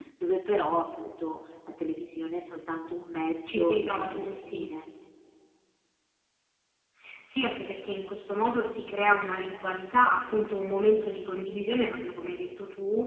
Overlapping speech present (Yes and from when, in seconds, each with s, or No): Yes, from 3.5 s